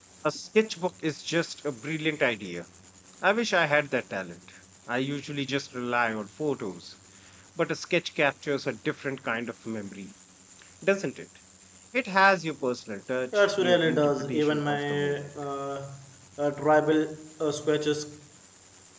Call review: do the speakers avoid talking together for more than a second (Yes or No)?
No